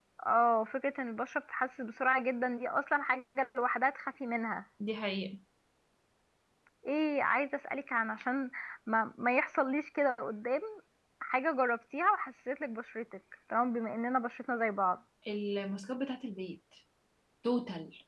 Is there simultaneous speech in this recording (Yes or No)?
No